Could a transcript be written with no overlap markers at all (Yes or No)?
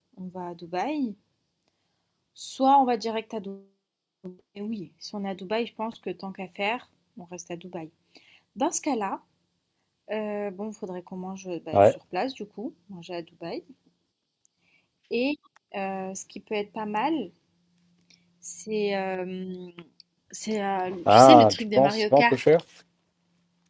No